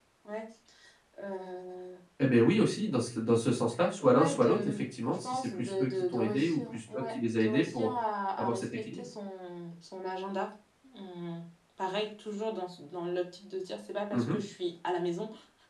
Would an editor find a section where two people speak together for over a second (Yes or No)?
Yes